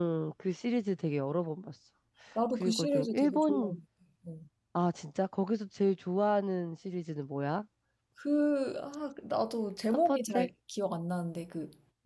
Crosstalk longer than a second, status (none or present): present